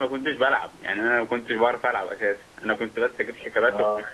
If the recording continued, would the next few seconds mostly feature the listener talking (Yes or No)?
No